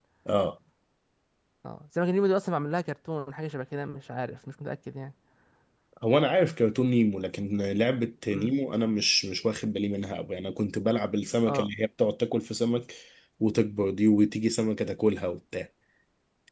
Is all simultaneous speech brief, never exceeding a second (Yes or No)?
Yes